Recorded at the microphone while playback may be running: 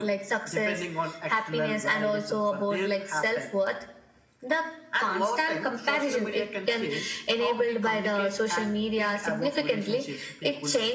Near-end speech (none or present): none